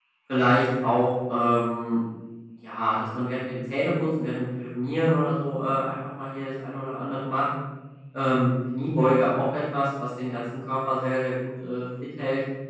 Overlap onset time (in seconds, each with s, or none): none